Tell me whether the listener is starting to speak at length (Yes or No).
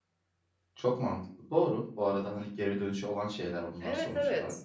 Yes